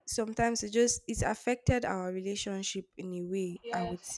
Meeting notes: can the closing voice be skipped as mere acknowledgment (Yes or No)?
No